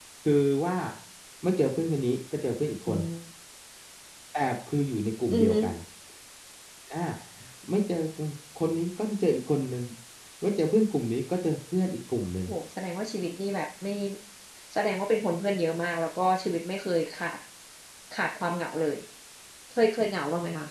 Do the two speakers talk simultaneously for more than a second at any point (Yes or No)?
No